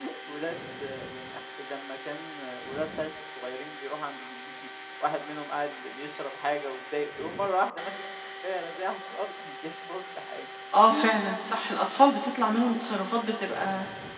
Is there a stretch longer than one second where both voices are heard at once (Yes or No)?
No